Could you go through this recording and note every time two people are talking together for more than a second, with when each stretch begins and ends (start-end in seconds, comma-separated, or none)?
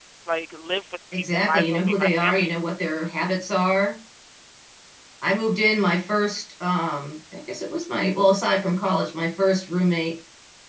1.1-2.5